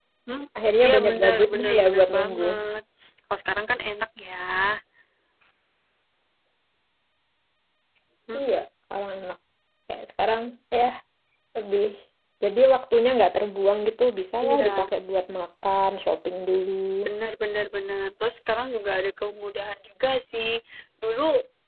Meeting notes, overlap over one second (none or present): present